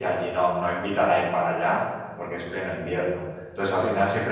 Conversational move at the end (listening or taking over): listening